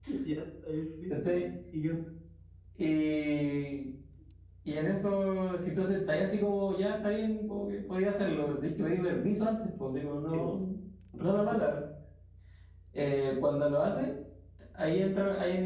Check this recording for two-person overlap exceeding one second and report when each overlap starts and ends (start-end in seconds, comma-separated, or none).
none